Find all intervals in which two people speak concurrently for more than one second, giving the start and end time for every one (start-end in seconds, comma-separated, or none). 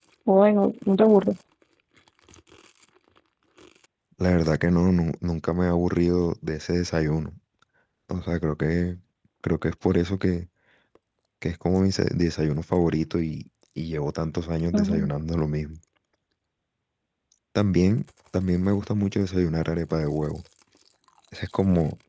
none